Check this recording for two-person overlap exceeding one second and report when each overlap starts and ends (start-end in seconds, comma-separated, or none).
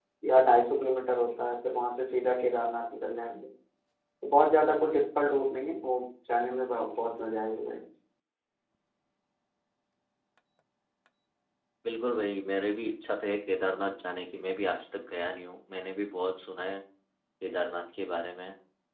none